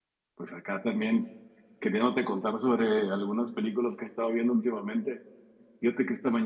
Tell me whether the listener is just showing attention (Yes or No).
Yes